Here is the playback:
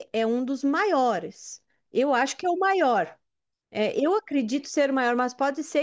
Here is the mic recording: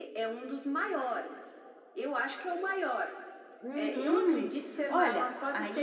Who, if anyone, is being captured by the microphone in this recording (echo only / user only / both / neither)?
both